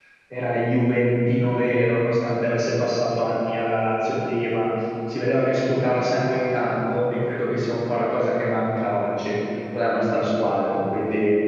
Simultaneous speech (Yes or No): No